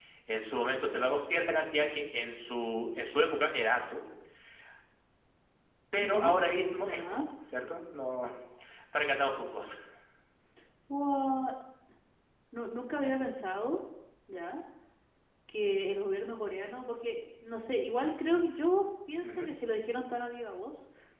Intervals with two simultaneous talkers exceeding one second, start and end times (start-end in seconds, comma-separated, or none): none